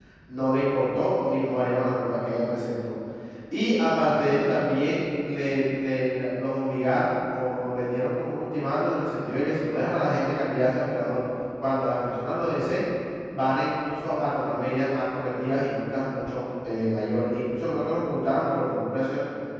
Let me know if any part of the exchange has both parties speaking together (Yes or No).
No